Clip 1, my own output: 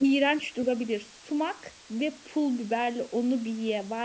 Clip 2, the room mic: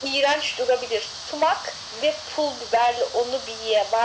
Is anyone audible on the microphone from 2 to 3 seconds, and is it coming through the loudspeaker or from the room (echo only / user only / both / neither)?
echo only